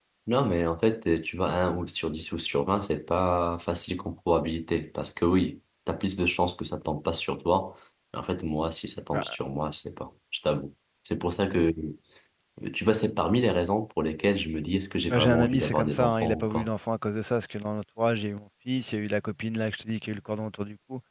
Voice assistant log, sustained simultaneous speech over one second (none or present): present